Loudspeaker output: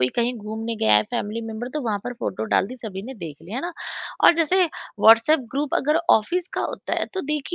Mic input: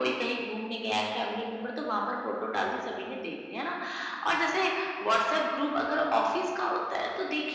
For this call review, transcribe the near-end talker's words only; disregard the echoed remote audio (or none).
none